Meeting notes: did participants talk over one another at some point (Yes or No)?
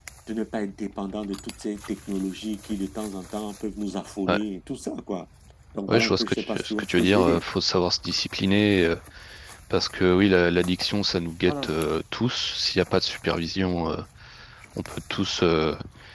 Yes